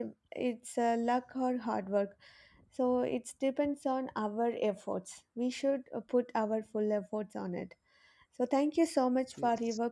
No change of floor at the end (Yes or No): Yes